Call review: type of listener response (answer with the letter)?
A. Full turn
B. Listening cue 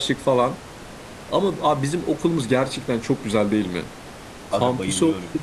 B